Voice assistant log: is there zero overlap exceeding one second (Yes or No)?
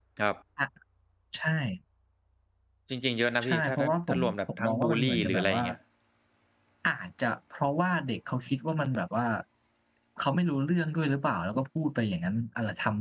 No